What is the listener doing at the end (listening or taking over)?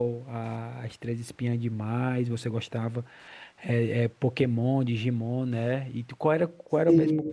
listening